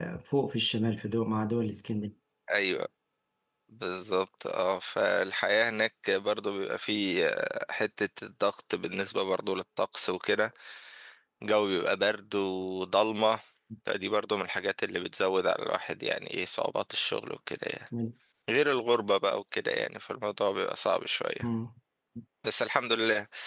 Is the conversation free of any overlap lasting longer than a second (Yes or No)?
Yes